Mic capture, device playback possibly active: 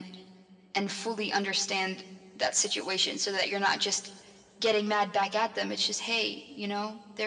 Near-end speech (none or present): none